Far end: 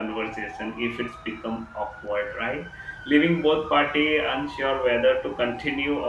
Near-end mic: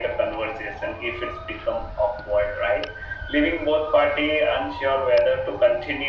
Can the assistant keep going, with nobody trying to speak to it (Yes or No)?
Yes